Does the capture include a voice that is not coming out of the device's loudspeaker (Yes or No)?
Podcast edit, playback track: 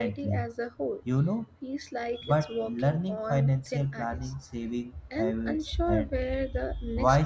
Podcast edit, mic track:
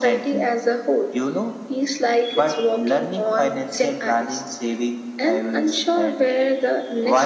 No